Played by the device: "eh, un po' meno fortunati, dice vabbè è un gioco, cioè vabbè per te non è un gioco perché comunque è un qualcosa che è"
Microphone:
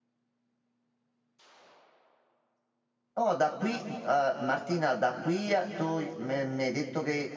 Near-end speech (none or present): present